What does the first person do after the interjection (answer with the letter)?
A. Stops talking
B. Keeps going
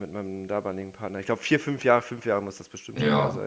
A